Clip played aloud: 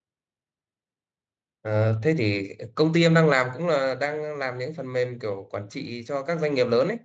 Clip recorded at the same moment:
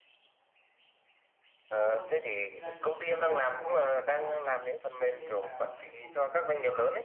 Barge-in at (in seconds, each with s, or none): 1.7 s